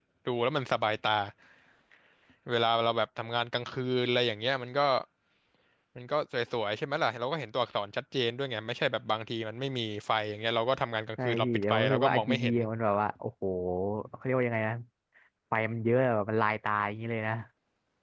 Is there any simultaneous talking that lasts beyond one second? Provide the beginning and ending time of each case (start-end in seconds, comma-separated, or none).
11.2-12.5